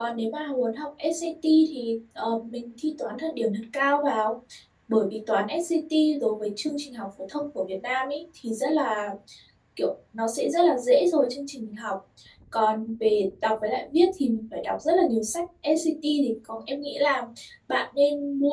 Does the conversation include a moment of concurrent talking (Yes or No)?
No